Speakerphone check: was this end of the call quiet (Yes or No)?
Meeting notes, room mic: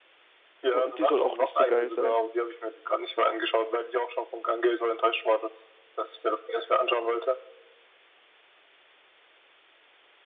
No